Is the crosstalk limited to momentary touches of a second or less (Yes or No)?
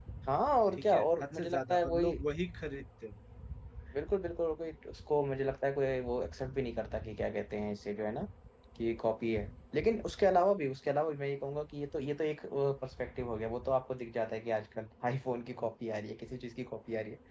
No